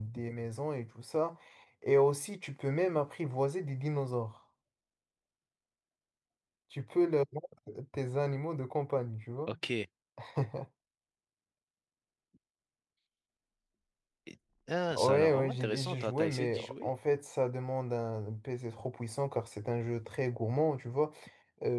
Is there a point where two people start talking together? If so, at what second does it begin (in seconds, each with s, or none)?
14.9 s